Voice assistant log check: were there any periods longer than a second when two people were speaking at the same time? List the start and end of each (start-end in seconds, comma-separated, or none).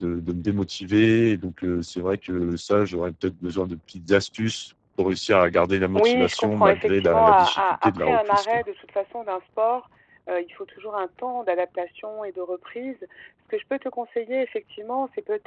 6.0-8.6